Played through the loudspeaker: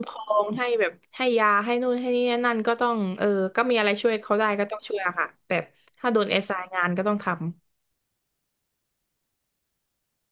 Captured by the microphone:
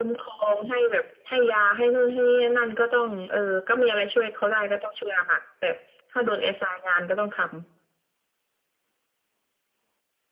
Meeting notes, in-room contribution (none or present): none